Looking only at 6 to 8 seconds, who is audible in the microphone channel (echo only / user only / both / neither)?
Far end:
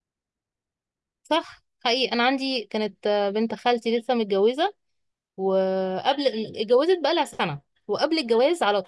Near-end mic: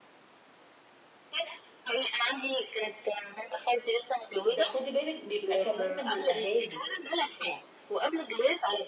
both